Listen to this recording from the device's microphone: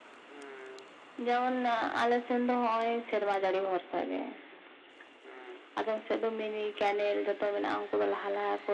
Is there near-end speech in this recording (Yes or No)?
No